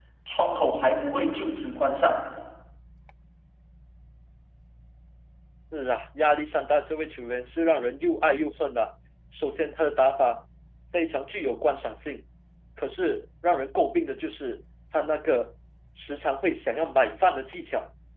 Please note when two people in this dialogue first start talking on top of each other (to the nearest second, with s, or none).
none